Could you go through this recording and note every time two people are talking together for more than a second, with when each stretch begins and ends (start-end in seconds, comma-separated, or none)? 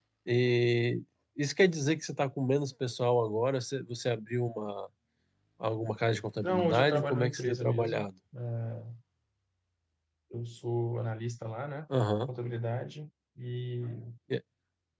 6.4-8.1